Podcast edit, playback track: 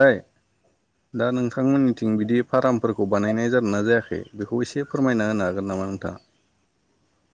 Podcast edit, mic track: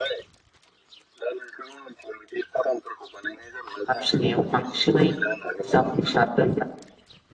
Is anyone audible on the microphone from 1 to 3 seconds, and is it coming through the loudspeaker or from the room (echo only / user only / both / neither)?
echo only